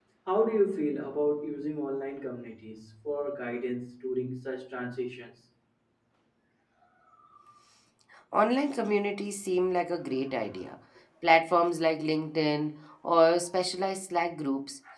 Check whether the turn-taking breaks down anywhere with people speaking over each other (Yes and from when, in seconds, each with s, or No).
No